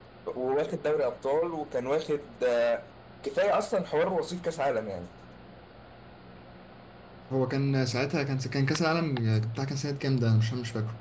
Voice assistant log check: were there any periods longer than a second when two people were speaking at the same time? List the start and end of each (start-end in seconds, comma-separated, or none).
none